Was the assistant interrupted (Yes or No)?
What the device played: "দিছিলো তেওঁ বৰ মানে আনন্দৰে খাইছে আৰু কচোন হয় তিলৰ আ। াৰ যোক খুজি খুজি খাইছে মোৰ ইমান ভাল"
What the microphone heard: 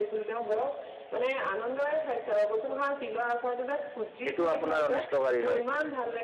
Yes